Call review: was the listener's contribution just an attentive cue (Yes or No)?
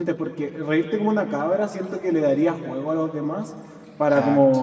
Yes